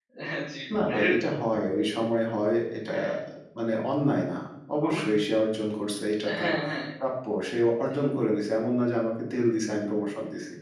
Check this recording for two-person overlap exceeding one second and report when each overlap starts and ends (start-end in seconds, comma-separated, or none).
none